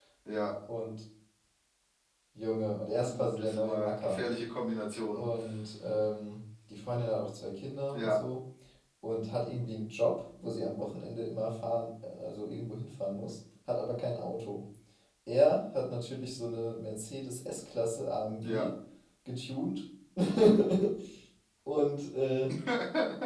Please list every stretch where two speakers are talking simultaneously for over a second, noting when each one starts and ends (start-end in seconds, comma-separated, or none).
3.0-4.2